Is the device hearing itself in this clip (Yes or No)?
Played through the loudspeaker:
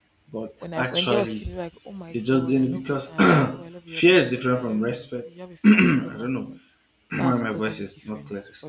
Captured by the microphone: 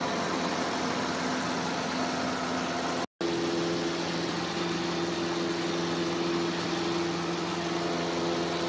No